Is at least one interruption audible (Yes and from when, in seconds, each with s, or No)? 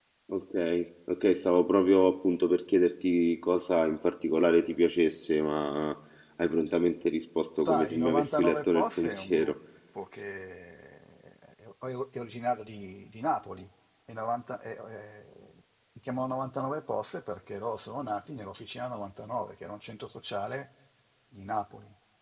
Yes, from 7.6 s